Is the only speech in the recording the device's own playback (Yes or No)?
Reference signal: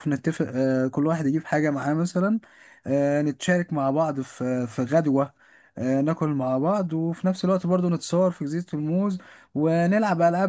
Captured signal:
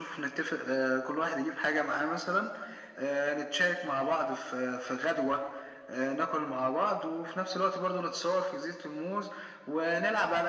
Yes